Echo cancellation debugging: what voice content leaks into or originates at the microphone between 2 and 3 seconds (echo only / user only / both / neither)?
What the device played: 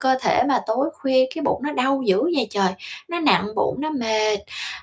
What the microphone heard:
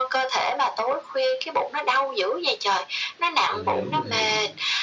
echo only